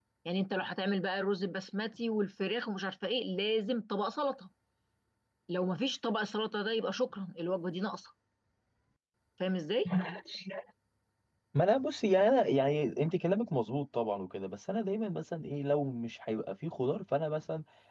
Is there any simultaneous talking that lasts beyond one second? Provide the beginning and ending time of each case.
none

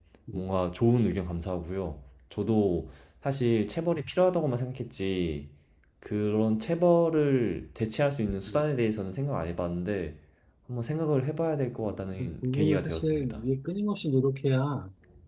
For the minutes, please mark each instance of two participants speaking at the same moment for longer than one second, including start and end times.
11.8-13.4

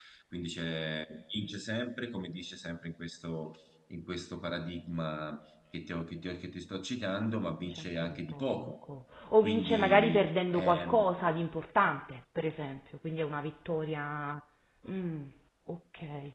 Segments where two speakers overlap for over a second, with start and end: 7.5-8.7, 9.4-11.1

